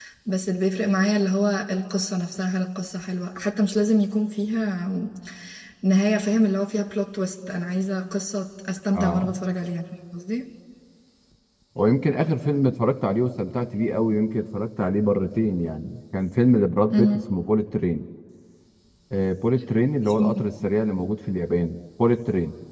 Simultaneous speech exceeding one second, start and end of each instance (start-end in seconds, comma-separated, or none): none